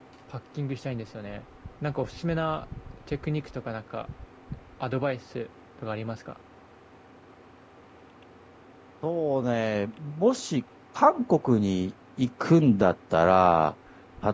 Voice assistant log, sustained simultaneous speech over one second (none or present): none